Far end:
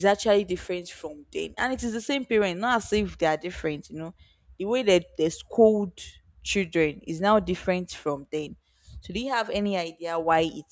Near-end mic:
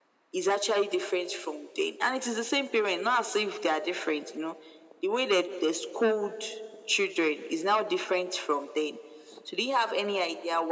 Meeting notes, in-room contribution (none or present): none